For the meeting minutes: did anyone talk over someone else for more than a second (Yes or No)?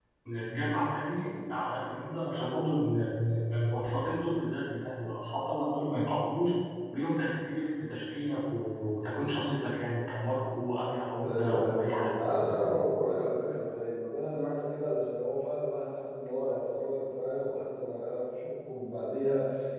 Yes